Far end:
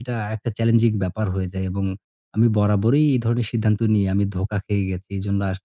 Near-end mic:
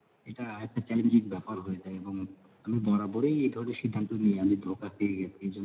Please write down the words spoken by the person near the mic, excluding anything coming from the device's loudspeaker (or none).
none